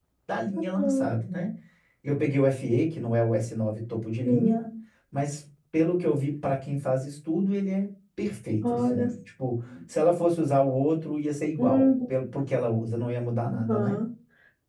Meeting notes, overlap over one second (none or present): none